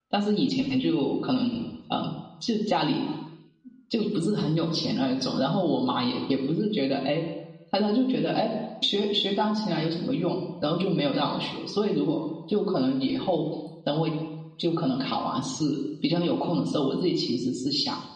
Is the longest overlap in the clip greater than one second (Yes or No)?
No